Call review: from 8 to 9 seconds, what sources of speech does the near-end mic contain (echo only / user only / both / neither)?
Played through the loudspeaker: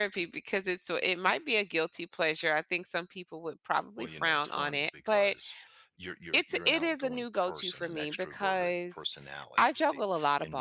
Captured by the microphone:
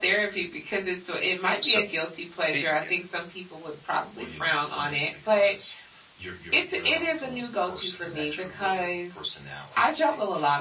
echo only